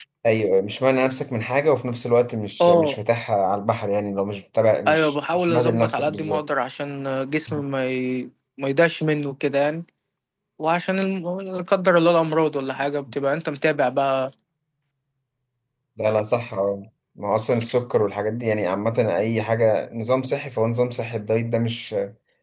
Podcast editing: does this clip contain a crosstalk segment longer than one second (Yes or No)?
Yes